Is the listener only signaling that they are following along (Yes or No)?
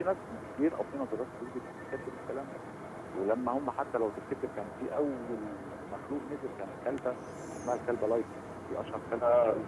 Yes